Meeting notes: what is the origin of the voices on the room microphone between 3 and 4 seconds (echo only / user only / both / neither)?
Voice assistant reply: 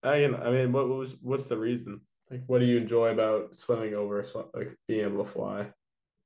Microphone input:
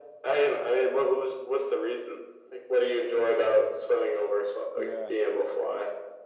echo only